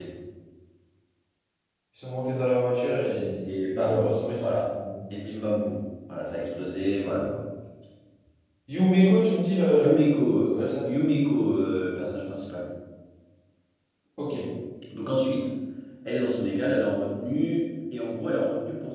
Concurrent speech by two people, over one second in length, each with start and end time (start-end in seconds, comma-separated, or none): none